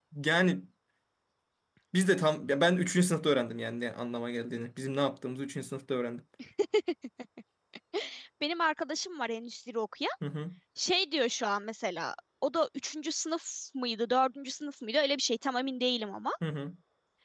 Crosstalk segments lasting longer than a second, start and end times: none

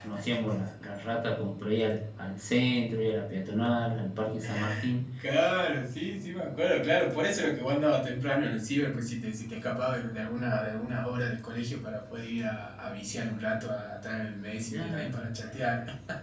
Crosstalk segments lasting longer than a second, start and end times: none

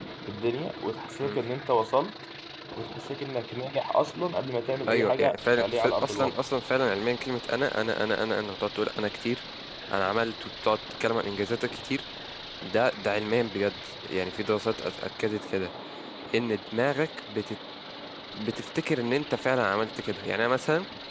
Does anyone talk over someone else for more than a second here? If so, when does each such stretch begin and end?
4.9-6.5

